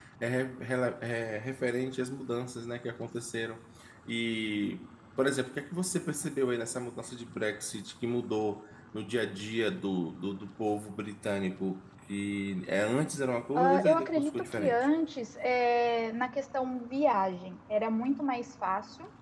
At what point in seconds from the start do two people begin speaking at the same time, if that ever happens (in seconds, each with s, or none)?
13.6 s